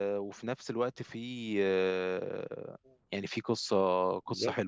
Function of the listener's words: taking over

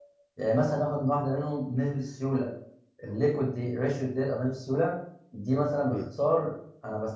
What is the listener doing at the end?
listening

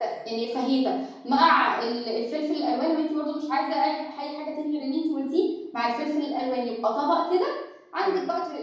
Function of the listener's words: listening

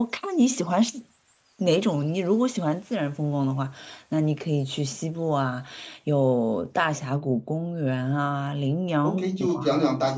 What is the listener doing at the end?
taking over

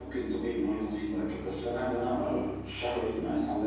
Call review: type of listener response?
listening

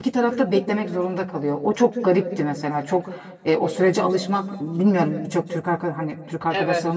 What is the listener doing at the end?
listening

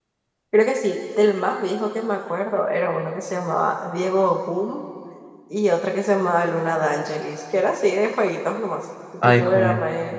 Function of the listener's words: listening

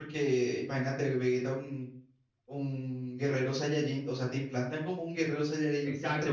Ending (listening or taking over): taking over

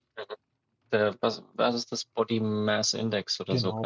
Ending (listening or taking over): taking over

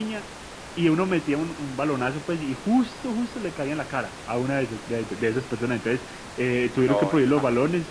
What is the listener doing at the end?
listening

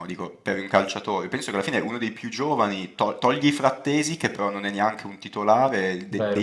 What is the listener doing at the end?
listening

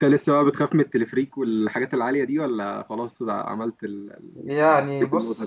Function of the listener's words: taking over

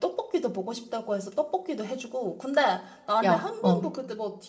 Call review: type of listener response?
listening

